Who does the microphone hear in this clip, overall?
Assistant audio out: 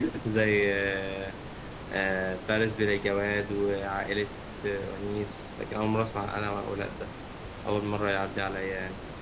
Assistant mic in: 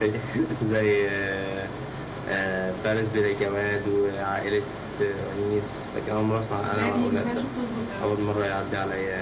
both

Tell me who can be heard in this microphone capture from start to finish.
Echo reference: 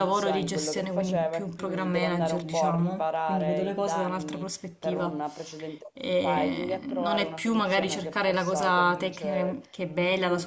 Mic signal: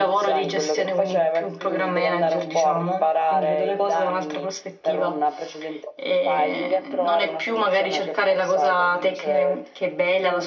echo only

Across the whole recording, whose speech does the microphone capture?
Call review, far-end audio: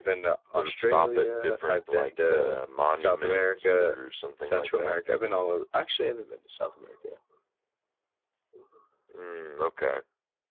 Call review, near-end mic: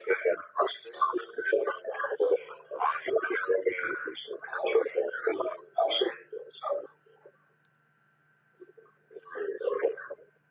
echo only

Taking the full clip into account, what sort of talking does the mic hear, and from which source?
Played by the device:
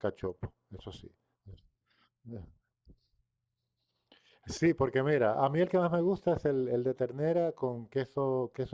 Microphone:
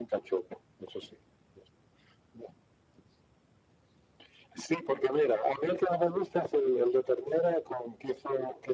echo only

